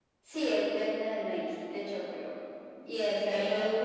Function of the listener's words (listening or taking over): taking over